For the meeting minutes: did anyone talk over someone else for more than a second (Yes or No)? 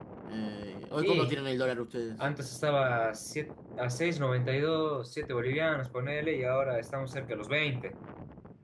No